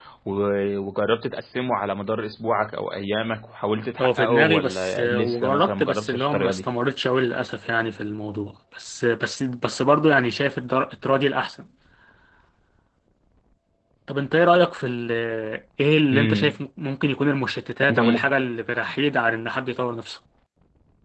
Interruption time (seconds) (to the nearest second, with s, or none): 4 s